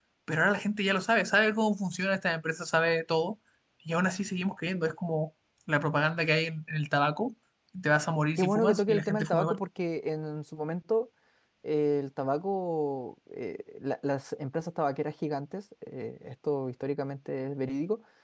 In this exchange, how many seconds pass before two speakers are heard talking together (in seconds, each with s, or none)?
8.4 s